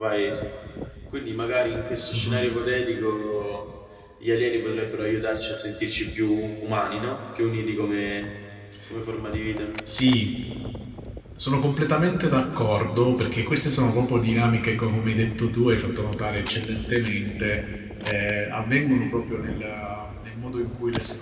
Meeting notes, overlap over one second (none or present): none